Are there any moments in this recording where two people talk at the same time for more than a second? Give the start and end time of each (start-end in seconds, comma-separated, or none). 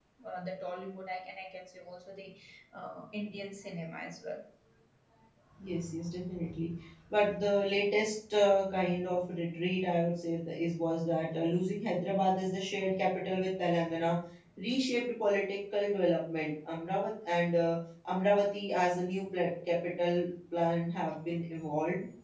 none